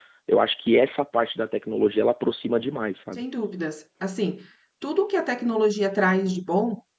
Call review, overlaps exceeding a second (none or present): none